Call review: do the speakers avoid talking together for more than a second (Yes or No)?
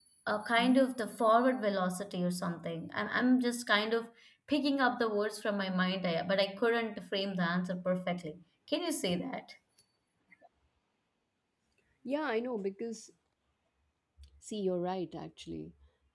Yes